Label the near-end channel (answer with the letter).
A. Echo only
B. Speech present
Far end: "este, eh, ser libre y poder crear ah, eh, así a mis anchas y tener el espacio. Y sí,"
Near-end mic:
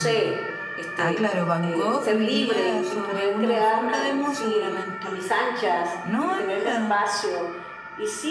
B